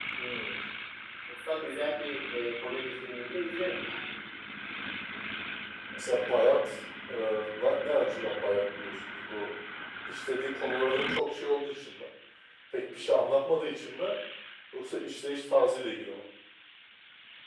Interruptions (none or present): none